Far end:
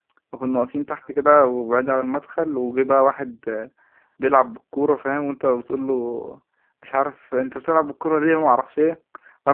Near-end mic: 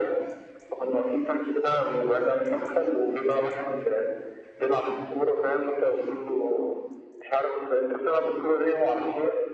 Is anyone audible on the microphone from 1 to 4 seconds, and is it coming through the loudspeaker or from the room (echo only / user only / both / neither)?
echo only